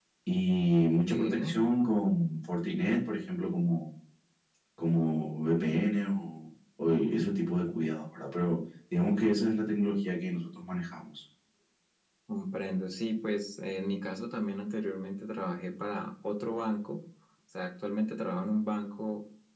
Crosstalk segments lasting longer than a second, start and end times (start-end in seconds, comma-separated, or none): none